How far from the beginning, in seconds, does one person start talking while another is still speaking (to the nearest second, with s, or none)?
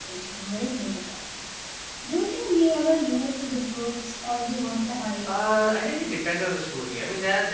none